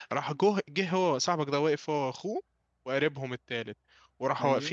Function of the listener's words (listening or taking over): listening